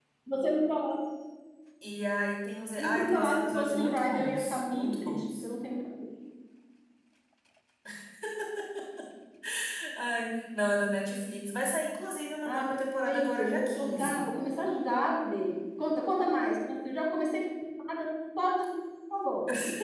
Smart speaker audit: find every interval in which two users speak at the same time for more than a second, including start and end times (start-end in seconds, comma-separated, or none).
2.8-5.5, 12.4-14.3